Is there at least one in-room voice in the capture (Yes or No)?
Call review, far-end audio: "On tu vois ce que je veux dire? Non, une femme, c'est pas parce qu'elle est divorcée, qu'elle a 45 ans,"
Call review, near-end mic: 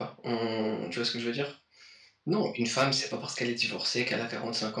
No